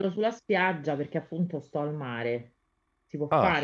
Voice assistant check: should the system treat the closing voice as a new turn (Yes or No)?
No